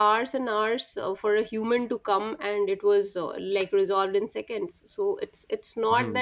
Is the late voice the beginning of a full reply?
Yes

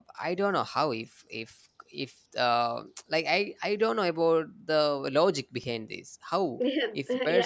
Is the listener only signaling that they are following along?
No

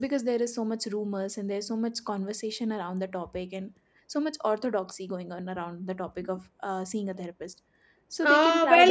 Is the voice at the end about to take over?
Yes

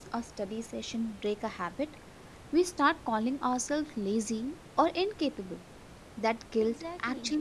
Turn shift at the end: No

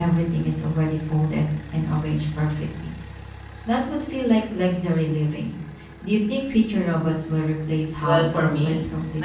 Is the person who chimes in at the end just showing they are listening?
No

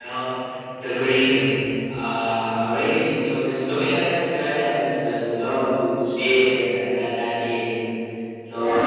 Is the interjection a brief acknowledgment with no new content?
No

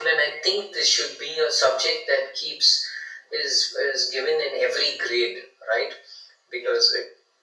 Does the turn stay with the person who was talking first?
Yes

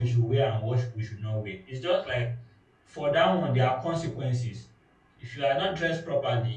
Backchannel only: Yes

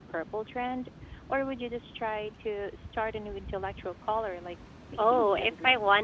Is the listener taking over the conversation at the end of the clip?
Yes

